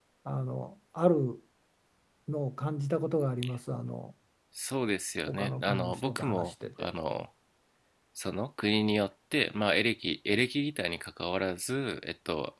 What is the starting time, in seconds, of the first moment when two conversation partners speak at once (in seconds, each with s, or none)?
5.3 s